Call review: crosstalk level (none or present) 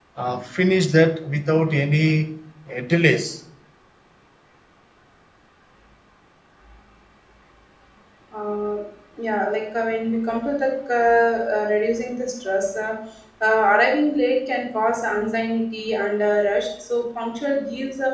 none